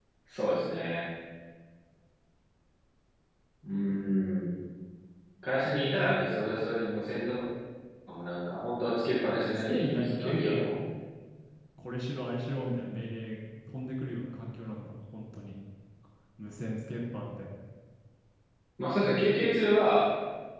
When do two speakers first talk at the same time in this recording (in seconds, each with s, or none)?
9.2 s